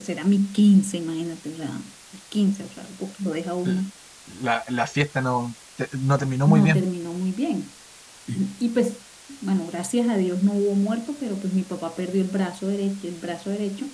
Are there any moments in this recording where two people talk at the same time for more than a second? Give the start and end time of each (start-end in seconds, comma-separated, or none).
none